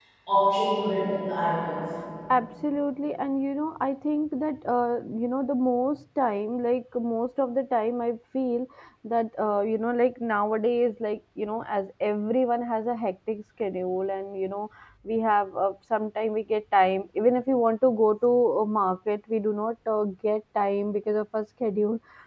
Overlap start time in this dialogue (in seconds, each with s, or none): none